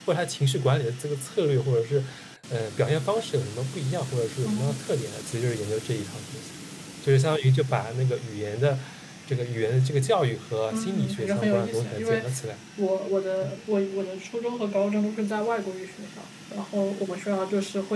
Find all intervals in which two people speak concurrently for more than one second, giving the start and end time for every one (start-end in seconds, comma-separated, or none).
10.7-12.2